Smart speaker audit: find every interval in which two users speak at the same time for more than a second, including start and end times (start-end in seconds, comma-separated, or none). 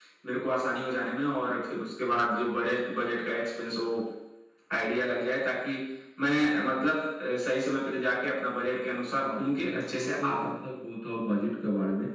9.1-10.5